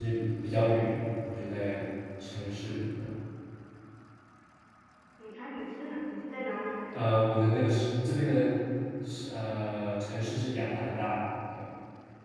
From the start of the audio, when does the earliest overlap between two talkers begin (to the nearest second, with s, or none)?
none